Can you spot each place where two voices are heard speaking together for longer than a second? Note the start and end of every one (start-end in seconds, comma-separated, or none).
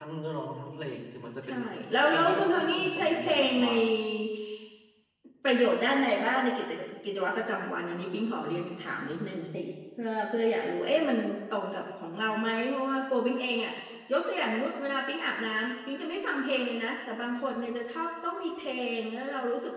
2.1-3.7